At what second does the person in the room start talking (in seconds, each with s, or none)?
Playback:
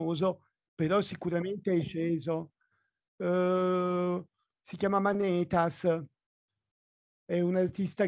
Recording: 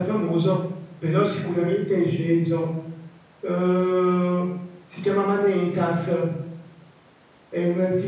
none